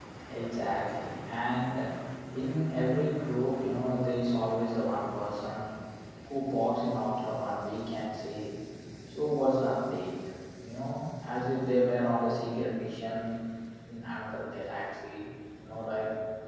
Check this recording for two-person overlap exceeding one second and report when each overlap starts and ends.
none

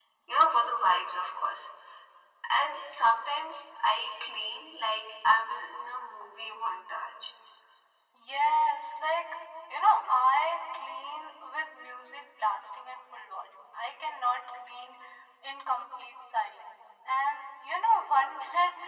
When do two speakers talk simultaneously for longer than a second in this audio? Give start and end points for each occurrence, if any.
none

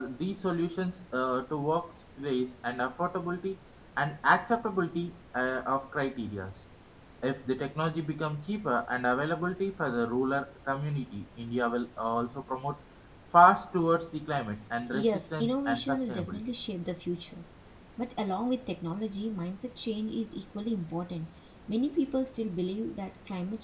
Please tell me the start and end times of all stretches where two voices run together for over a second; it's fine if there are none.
14.9-16.4

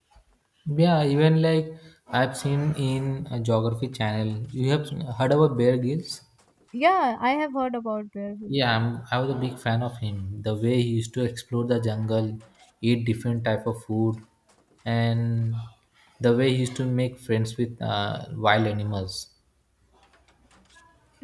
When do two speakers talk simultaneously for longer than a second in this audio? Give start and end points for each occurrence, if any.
none

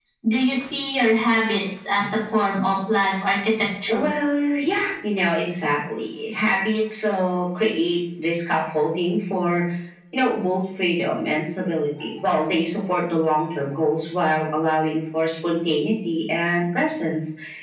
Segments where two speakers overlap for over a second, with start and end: none

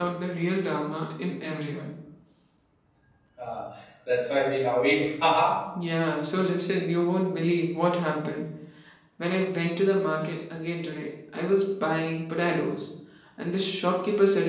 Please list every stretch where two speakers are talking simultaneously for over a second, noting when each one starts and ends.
none

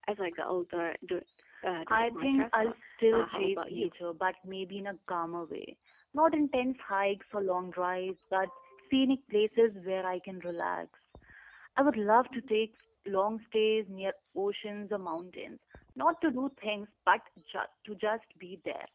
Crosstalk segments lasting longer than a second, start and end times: 1.9-3.9

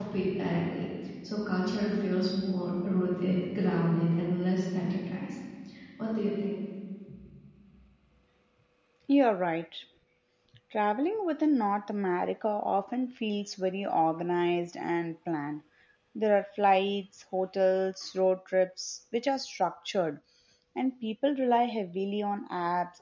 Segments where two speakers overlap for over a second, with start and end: none

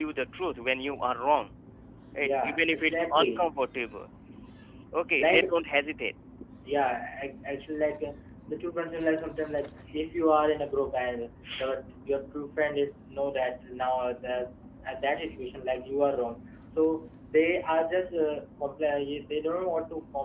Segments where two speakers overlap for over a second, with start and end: 2.2-3.4

